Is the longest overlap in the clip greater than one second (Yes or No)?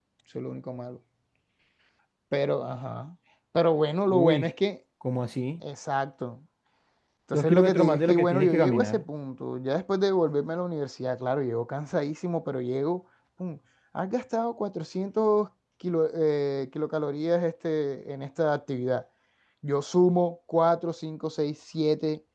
Yes